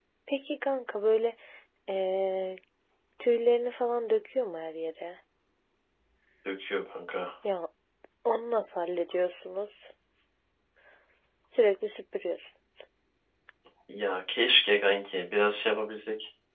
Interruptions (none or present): none